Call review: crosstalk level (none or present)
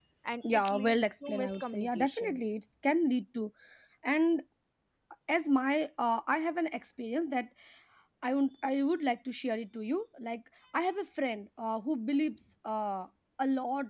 present